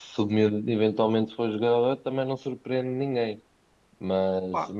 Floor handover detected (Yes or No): Yes